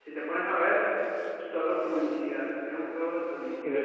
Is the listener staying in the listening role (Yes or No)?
No